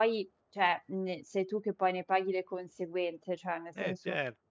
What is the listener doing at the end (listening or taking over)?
listening